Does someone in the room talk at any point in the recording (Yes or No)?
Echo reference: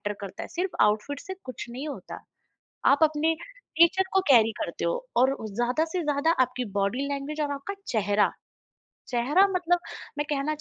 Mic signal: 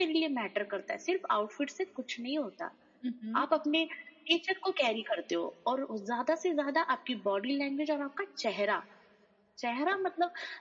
Yes